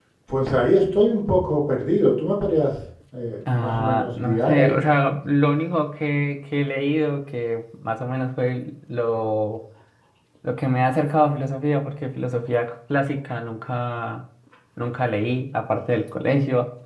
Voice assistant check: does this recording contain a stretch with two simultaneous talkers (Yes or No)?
Yes